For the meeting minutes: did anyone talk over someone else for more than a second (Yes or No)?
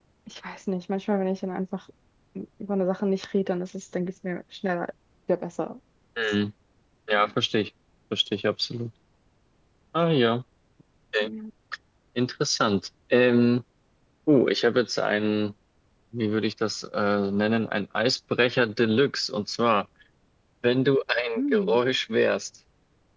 No